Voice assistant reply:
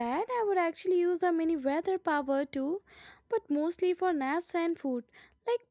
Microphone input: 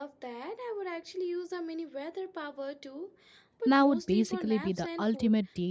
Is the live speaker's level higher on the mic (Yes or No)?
Yes